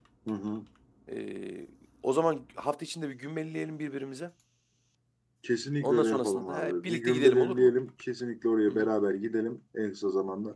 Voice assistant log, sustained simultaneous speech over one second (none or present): present